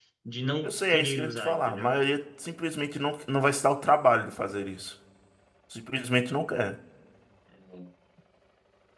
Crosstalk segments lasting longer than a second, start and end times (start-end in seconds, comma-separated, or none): 0.6-2.0